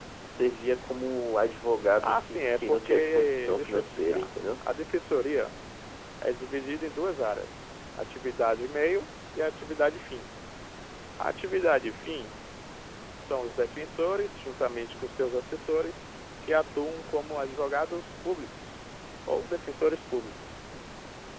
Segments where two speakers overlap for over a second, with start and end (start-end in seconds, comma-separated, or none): 2.0-4.3